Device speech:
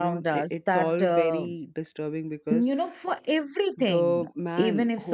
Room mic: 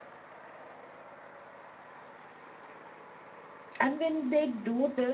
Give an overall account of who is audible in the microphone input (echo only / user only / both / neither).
user only